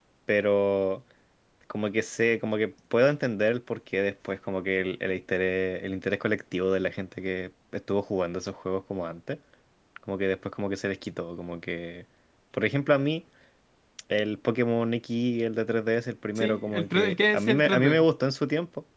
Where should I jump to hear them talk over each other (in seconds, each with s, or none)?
16.4 s